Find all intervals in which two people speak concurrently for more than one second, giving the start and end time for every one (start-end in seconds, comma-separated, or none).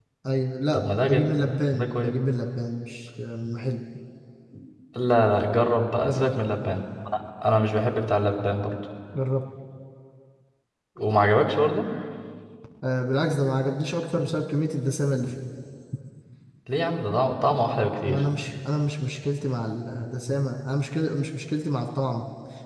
0.7-2.1